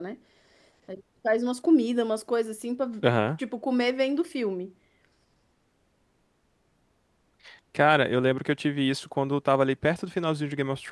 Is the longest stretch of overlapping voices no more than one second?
Yes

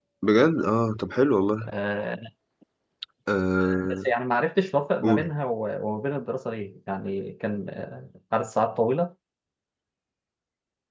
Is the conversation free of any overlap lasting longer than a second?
Yes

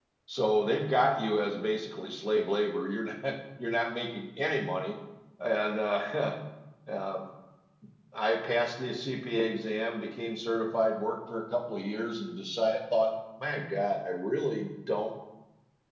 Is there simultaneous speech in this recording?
No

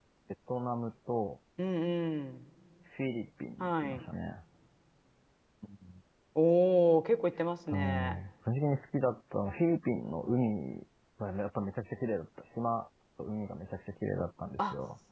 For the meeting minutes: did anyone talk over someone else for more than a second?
No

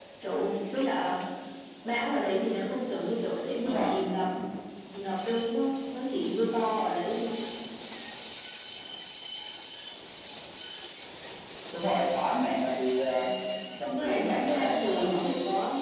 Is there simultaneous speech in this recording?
Yes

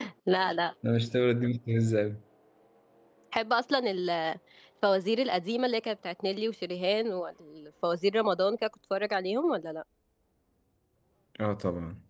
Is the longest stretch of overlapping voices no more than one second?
Yes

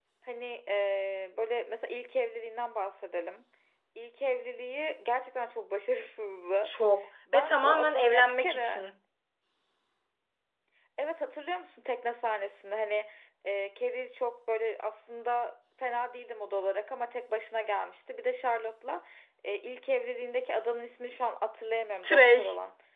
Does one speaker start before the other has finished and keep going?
Yes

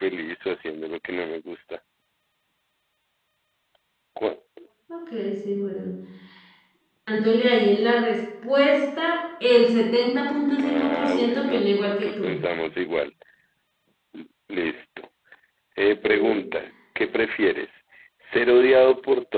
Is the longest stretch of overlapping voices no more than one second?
No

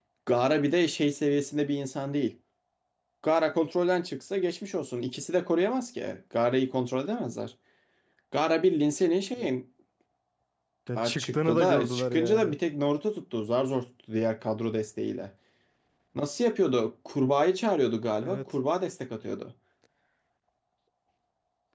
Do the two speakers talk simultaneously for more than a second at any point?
Yes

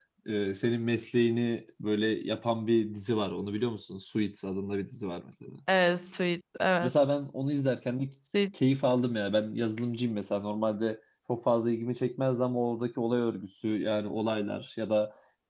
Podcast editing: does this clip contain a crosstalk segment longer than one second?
No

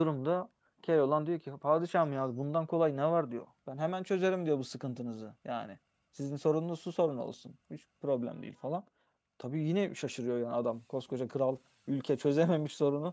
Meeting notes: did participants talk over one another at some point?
No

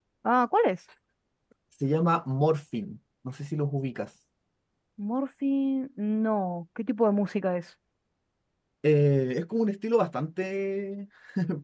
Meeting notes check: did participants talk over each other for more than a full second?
No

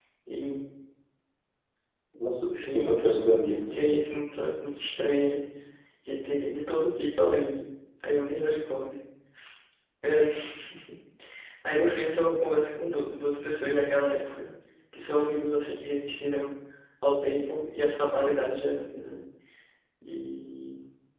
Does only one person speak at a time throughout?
No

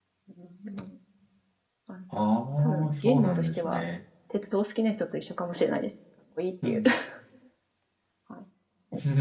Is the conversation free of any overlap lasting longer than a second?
No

